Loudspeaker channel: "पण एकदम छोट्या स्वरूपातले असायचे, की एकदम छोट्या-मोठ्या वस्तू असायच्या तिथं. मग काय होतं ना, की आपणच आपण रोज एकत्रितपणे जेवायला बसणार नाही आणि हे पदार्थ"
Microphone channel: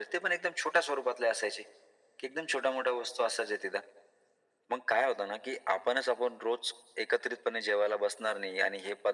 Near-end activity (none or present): none